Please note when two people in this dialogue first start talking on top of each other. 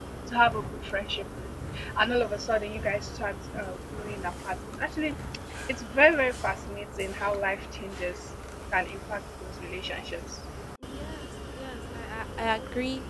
none

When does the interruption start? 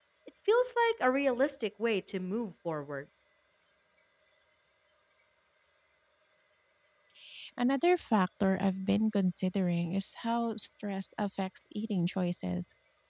none

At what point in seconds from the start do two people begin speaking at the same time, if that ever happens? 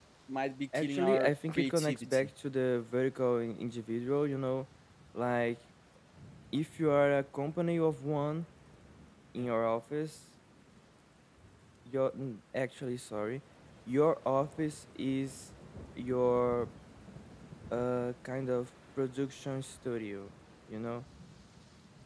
0.8 s

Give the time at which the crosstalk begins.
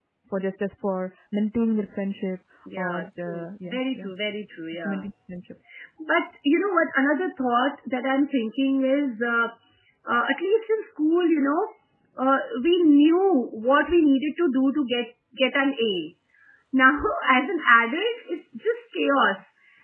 2.8 s

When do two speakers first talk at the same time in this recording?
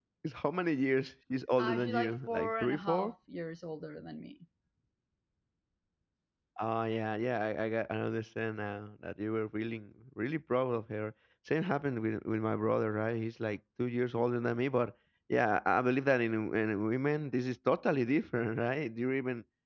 1.6 s

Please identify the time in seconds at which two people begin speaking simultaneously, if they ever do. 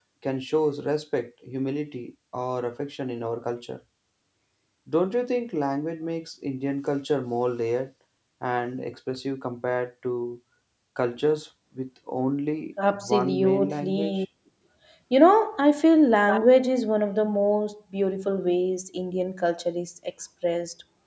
12.8 s

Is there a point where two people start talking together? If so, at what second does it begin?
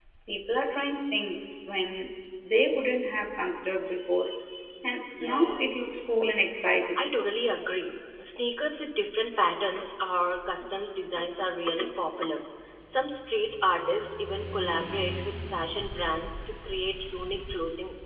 5.2 s

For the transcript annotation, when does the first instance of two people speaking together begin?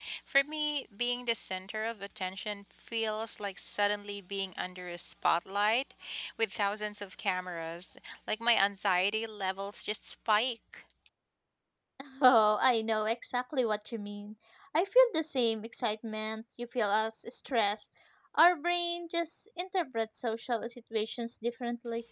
none

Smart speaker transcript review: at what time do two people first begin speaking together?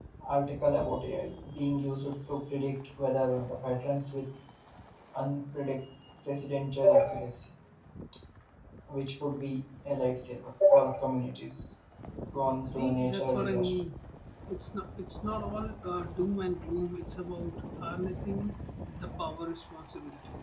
12.6 s

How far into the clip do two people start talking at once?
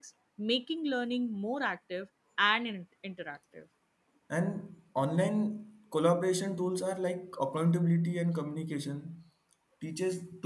none

